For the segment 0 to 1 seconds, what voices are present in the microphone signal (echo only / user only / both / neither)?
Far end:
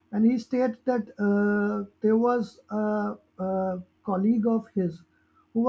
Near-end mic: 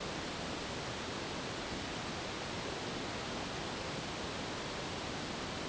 neither